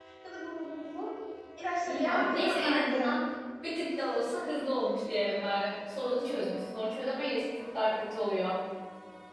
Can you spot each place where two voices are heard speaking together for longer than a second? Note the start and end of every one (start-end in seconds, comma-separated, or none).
1.9-3.1